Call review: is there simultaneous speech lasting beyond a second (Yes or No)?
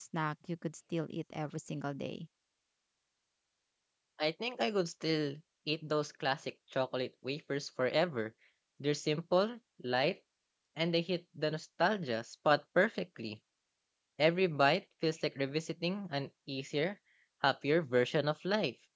No